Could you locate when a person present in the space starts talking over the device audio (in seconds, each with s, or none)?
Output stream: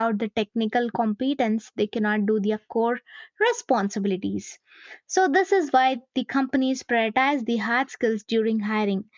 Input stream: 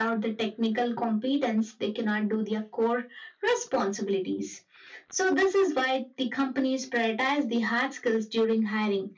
none